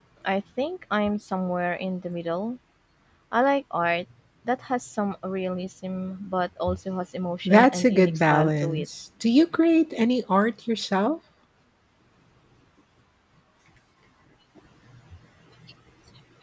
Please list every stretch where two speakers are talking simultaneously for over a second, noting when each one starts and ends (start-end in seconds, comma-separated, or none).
7.5-8.8